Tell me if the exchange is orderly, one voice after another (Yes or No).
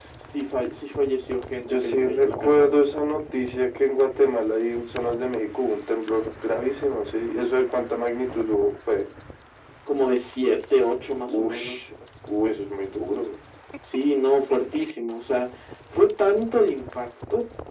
No